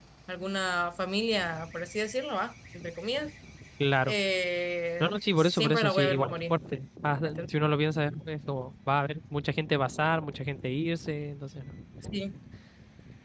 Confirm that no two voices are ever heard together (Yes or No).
No